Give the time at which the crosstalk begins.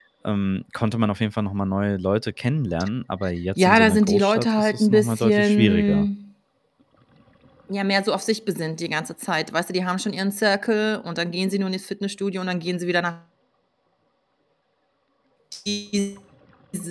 3.6 s

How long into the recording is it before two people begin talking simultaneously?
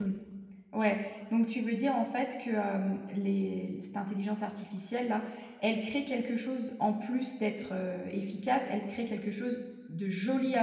none

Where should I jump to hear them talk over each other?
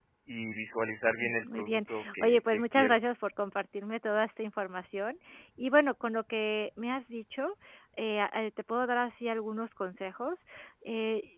1.2 s

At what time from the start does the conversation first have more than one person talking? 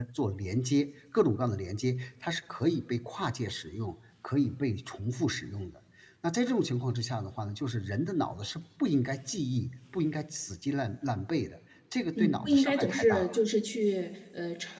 12.2 s

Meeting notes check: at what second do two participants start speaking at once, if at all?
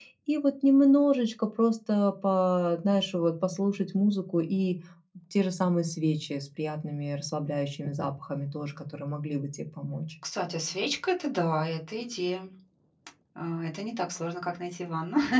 none

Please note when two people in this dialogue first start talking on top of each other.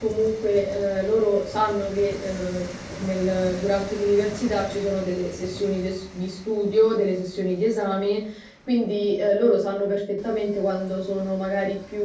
none

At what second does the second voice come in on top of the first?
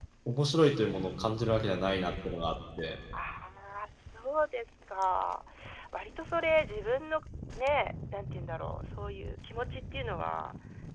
none

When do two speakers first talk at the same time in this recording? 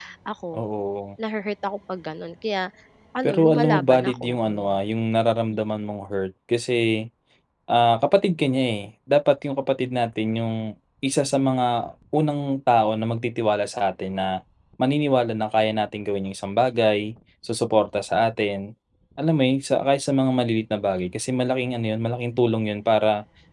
3.2 s

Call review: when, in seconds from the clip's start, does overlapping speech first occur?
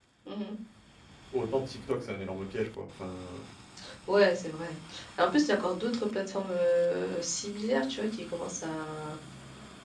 none

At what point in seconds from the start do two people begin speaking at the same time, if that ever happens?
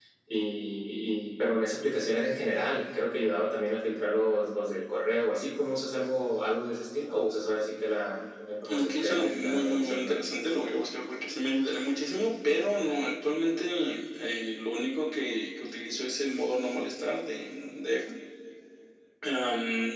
8.6 s

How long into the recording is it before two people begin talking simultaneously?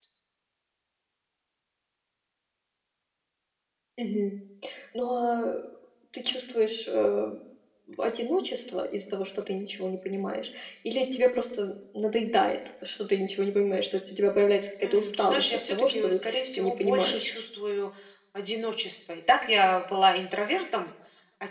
14.8 s

